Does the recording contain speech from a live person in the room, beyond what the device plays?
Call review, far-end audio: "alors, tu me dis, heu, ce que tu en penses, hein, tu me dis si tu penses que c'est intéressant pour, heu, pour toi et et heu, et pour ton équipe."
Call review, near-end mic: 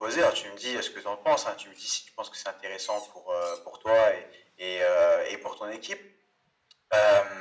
No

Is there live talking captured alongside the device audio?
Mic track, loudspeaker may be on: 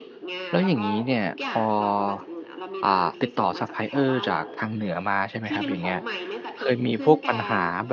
Yes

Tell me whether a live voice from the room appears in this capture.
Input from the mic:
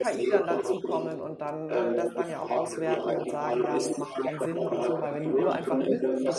Yes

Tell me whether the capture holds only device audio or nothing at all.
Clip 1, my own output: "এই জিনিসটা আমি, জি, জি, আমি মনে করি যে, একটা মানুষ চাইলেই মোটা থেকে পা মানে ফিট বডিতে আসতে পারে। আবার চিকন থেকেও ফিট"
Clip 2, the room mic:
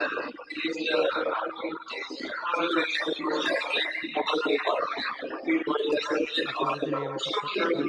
No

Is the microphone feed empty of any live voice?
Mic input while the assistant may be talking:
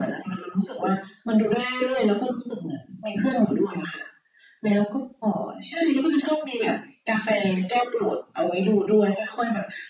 Yes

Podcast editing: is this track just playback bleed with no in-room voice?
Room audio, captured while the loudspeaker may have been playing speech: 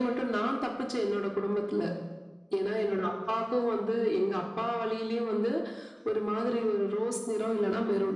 Yes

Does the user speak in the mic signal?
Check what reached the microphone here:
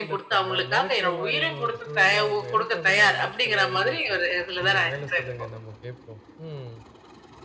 Yes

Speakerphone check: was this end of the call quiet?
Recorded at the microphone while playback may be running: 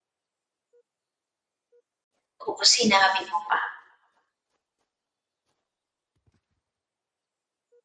No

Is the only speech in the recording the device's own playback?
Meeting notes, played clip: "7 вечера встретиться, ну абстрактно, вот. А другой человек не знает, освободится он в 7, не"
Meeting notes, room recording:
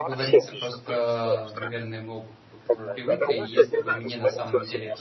No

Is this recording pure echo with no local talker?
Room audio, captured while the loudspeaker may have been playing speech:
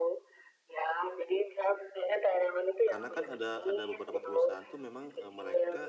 No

